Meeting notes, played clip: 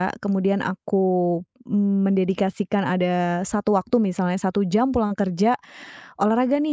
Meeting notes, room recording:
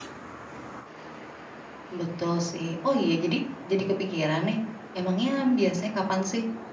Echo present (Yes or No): No